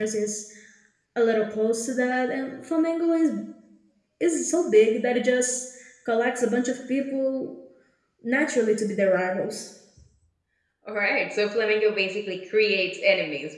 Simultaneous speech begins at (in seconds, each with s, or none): none